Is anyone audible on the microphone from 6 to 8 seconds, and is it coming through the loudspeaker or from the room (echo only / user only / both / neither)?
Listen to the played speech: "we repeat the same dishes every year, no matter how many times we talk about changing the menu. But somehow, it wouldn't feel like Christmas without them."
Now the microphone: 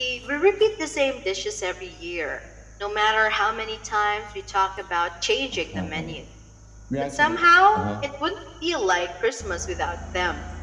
both